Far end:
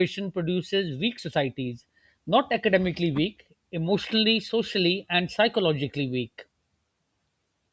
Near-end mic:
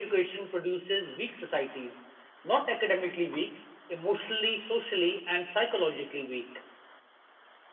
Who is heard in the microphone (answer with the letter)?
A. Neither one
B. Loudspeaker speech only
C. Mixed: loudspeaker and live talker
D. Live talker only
B